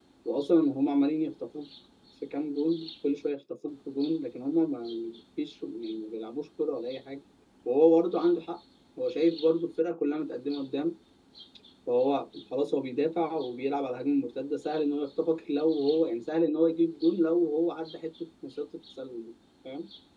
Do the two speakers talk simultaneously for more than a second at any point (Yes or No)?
No